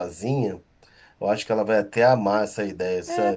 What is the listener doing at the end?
taking over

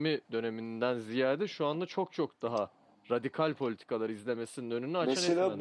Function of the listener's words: taking over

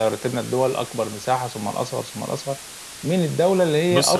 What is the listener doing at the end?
listening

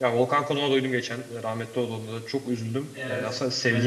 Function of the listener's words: taking over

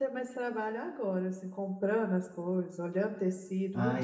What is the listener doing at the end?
taking over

